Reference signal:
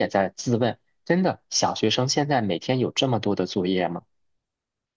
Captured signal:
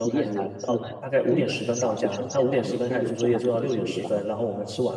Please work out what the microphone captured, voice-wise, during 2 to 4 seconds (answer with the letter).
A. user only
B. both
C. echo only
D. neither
B